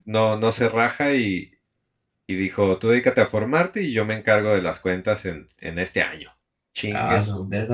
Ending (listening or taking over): taking over